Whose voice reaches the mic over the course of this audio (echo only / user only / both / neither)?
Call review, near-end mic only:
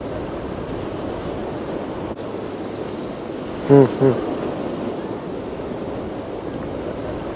user only